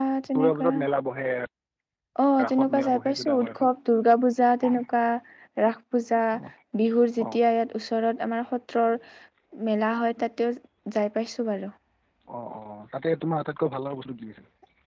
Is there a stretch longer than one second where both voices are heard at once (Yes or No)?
Yes